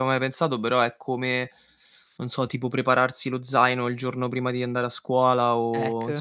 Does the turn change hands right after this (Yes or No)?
No